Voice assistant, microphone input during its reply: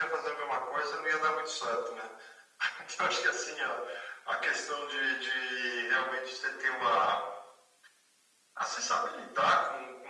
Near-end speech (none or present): none